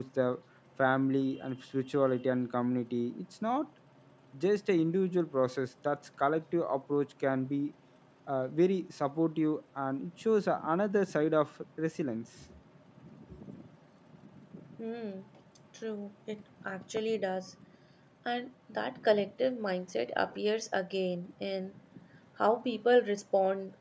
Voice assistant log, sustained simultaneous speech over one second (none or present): none